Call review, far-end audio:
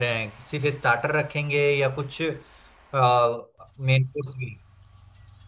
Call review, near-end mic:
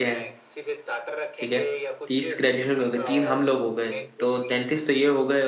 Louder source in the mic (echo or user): user